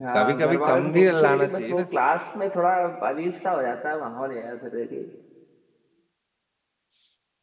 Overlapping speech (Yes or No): Yes